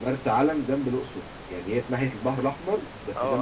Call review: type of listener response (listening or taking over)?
taking over